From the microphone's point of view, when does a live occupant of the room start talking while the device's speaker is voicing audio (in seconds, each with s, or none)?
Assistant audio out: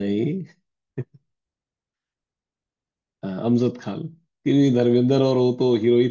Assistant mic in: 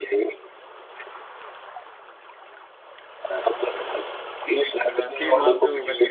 4.8 s